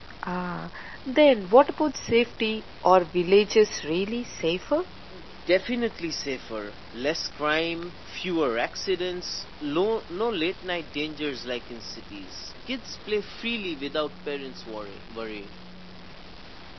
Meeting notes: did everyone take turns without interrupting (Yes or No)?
Yes